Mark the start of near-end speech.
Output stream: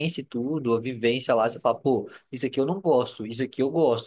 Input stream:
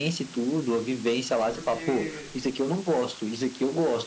1.5 s

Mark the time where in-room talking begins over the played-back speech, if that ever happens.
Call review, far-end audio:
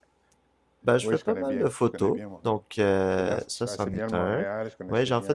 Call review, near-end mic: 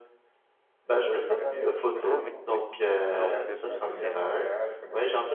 2.0 s

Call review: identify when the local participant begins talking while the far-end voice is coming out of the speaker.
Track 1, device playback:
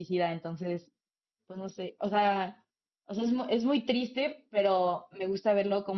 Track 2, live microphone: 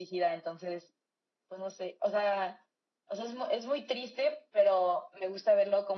none

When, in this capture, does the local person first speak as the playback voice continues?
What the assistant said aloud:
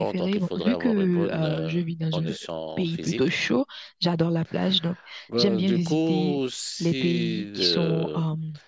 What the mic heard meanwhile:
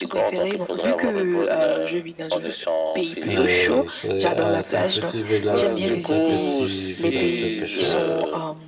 3.3 s

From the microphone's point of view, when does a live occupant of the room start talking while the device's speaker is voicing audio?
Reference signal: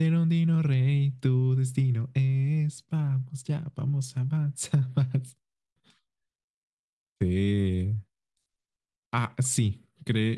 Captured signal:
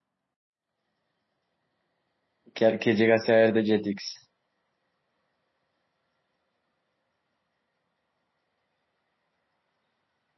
2.5 s

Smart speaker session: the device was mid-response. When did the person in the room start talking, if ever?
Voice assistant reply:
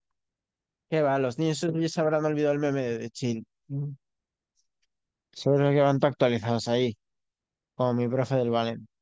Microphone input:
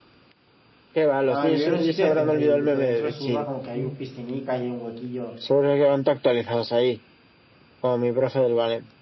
1.3 s

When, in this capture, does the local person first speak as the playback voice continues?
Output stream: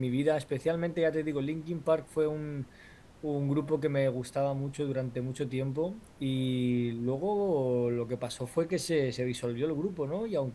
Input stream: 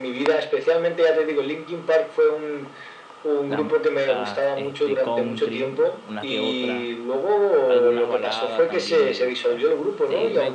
3.5 s

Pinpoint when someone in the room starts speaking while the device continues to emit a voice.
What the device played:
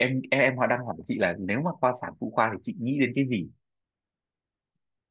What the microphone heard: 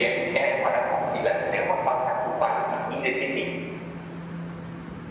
none

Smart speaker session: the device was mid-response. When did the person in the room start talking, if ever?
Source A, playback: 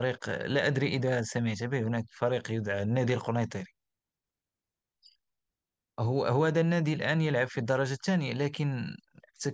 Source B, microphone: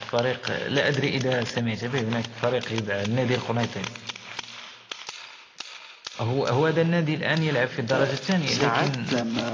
7.9 s

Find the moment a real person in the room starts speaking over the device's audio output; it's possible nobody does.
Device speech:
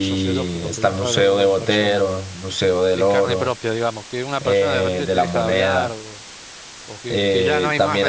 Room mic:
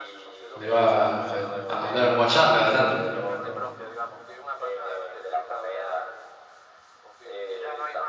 0.5 s

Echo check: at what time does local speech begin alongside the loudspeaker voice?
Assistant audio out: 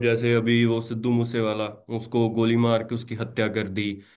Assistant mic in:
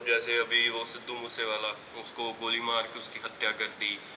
none

